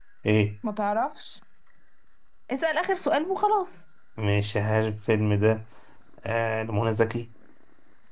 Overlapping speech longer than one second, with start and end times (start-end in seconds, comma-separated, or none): none